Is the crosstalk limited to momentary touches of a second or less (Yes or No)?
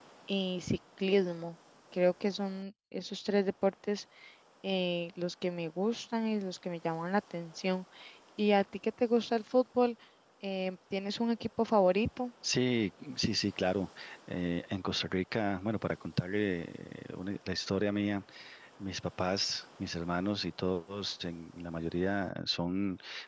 Yes